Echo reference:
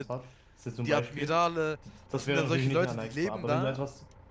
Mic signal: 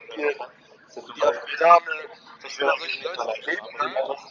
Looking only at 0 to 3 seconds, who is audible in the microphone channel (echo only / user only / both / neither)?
echo only